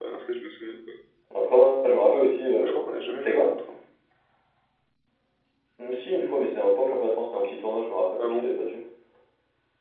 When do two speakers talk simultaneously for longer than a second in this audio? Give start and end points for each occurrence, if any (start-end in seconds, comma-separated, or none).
none